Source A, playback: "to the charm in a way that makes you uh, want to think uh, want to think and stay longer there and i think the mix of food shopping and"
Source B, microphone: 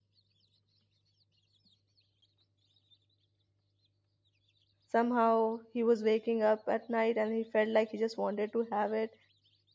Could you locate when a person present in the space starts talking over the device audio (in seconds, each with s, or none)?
4.8 s